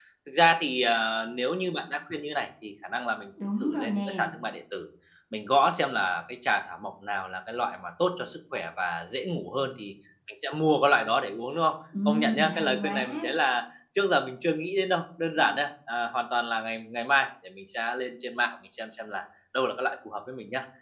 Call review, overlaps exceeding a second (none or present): present